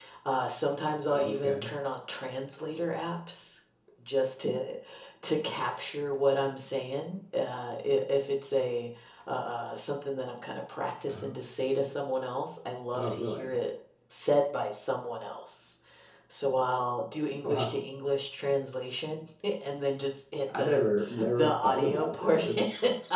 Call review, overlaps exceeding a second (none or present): present